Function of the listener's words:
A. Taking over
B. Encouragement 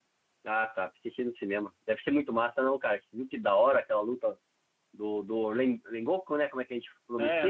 A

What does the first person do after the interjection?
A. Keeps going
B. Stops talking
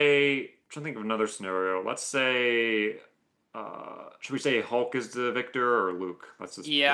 B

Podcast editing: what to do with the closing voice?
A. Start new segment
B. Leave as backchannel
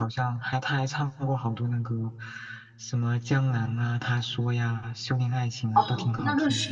A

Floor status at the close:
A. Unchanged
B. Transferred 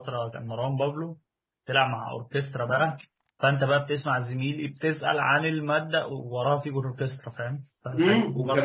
B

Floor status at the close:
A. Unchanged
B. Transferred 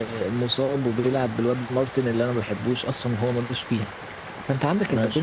A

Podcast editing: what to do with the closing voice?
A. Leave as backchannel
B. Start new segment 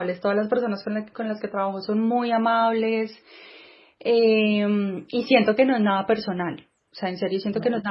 A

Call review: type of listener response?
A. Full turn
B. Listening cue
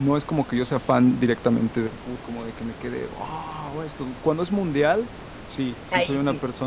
B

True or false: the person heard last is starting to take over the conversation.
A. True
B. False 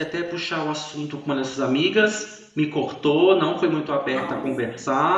B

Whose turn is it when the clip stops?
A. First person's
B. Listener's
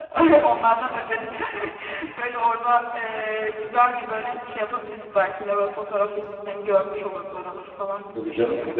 B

